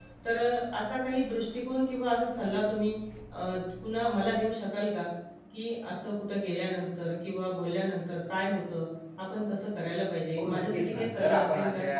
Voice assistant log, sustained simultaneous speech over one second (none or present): present